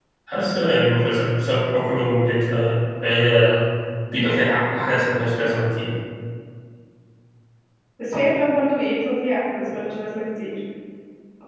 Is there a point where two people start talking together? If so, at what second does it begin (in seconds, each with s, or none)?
none